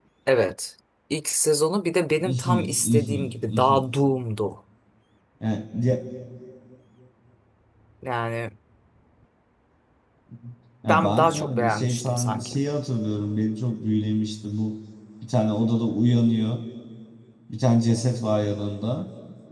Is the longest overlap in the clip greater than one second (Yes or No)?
Yes